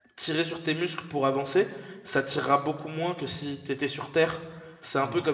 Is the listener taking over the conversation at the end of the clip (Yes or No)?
No